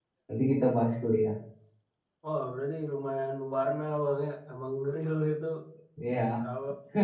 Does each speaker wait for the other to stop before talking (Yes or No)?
Yes